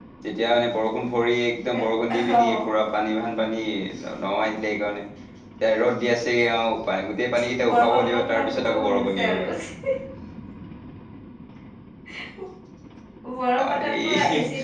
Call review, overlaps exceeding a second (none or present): present